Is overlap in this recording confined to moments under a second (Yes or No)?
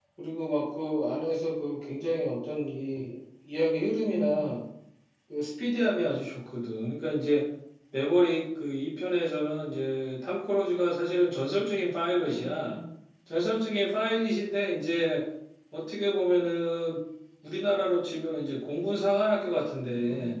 Yes